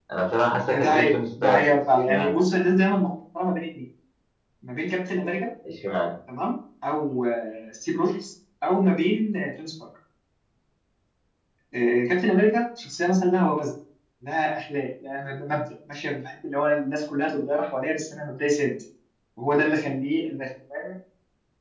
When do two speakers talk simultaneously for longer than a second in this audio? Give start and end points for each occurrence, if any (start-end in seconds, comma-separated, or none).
0.7-2.4